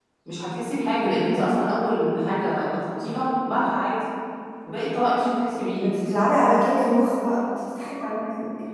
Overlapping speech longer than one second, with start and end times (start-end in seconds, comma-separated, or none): none